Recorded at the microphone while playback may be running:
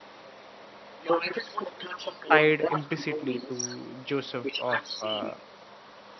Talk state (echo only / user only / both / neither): both